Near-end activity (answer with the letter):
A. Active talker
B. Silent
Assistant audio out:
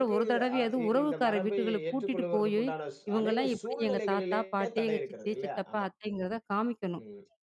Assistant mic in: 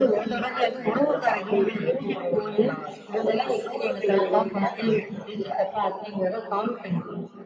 B